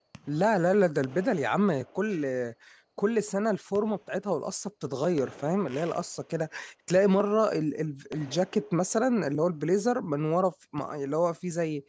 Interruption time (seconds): none

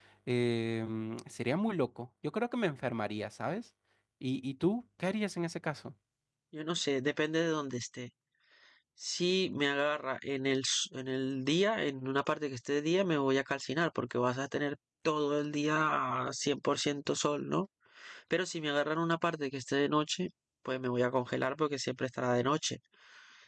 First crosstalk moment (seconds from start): none

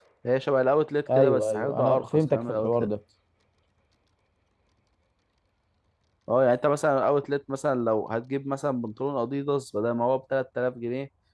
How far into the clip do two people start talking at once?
1.2 s

